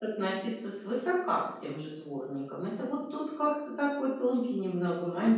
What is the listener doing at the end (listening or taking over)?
taking over